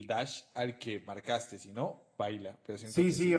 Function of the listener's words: taking over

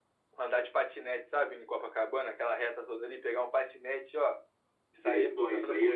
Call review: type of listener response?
taking over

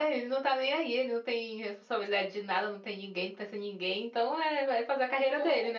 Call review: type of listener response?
taking over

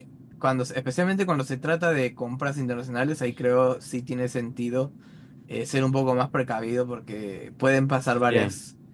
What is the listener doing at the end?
listening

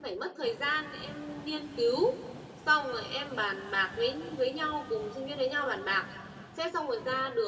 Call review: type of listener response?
listening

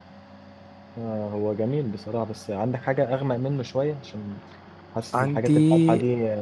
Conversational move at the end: listening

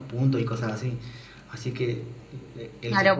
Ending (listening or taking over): taking over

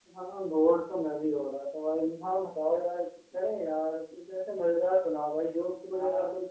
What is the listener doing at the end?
taking over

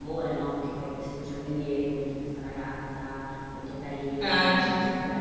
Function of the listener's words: listening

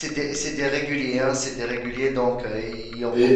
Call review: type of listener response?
taking over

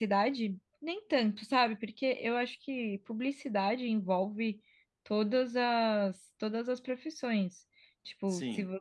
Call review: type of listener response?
listening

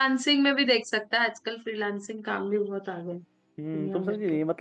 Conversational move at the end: taking over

